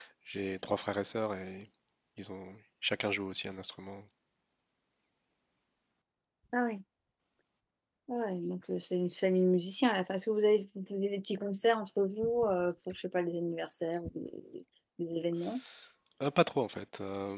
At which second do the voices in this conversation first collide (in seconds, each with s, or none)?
none